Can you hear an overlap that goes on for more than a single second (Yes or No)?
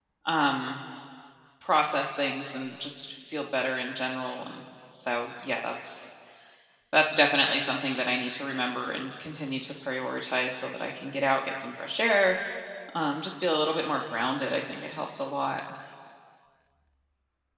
No